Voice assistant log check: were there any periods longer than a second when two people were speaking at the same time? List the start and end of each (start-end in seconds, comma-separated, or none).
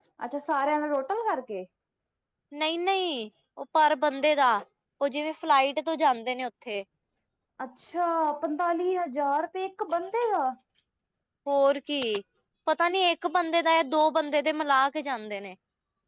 none